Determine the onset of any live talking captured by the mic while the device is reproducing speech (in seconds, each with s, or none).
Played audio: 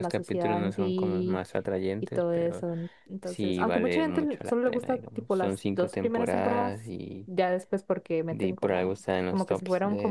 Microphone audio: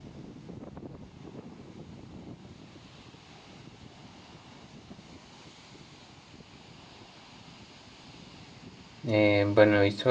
9.1 s